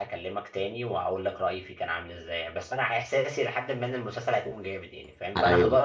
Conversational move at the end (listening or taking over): listening